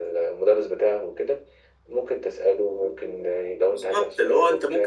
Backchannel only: No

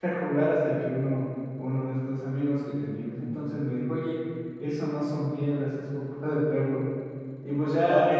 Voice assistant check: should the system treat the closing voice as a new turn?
No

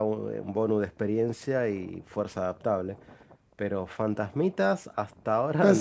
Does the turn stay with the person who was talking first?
No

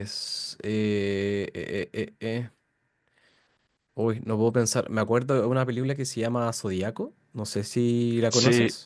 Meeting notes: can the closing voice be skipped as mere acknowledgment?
No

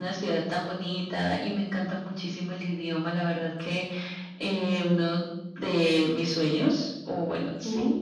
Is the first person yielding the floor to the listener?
No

